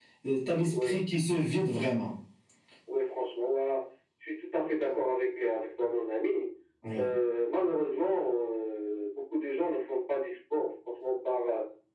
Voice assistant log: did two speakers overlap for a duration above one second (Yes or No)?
No